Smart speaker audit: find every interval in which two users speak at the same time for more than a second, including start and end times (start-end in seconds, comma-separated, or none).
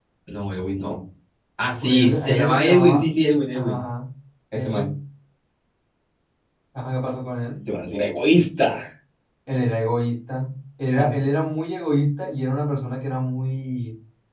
1.8-3.1